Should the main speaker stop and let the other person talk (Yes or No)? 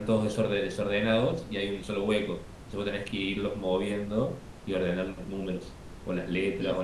Yes